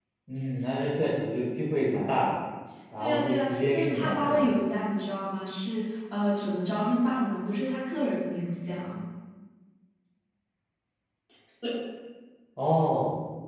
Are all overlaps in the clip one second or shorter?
No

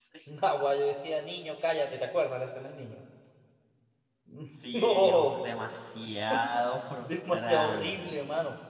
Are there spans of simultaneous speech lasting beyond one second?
Yes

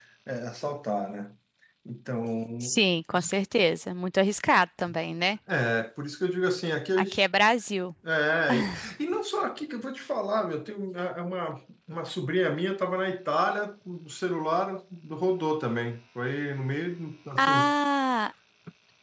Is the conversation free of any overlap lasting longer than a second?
Yes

